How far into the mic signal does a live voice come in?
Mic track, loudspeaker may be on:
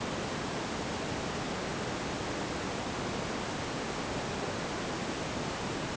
none

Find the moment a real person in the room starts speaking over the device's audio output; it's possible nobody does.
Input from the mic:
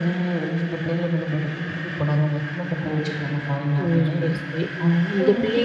3.8 s

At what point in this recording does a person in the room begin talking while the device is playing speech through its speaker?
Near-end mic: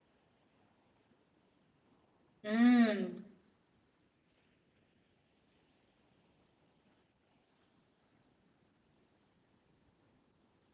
2.4 s

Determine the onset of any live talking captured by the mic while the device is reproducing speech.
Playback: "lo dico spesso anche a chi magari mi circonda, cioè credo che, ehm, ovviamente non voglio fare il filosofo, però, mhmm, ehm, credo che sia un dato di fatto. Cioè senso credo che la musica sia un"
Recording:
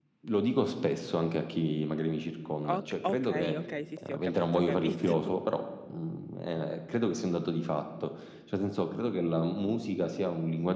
2.6 s

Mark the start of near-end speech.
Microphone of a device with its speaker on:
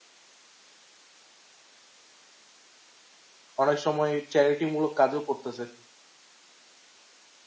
3.6 s

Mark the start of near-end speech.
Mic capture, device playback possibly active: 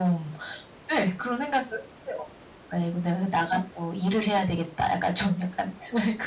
none

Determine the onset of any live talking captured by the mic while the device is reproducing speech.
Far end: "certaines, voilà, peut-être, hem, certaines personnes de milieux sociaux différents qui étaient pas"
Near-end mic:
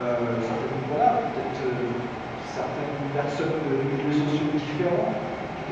none

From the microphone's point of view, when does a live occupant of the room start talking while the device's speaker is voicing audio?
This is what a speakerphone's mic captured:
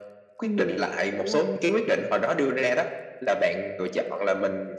0.4 s

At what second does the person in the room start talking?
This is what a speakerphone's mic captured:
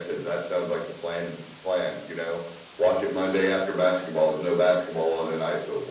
none

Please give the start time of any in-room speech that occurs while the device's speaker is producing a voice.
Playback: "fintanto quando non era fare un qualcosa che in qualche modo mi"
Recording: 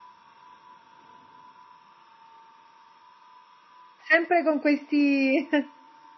4.0 s

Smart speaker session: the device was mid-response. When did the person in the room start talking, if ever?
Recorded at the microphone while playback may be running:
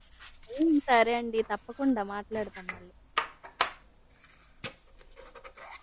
0.6 s

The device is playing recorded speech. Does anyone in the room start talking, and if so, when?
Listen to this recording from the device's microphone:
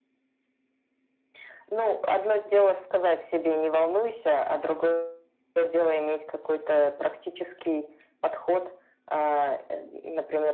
none

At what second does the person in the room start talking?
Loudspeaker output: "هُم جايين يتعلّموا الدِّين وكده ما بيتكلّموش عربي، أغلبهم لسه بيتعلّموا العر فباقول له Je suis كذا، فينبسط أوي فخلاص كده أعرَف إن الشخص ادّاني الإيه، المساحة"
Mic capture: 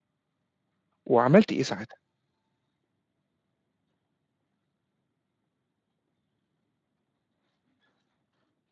1.1 s

